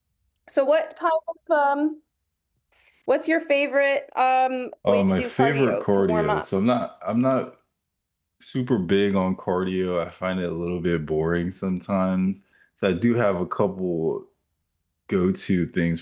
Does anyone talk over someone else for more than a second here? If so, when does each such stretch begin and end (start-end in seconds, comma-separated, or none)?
4.9-6.4